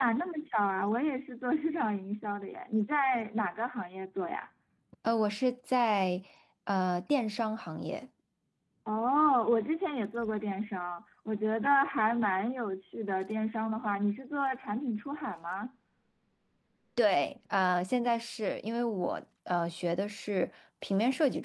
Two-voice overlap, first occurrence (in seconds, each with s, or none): none